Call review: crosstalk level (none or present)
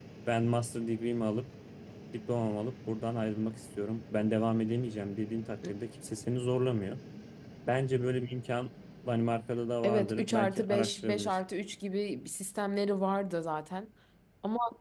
present